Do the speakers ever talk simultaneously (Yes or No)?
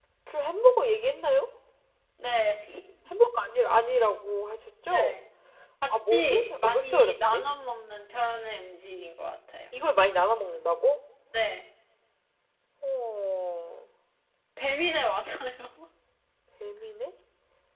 Yes